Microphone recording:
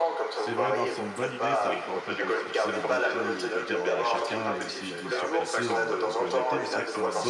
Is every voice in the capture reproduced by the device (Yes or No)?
No